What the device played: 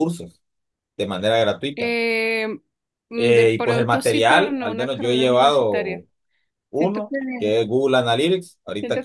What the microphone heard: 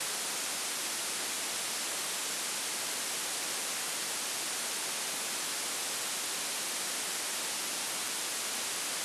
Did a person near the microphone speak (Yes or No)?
No